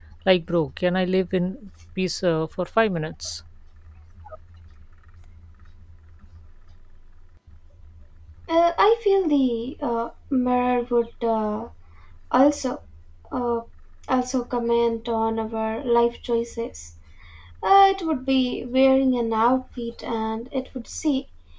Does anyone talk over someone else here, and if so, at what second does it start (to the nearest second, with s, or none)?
none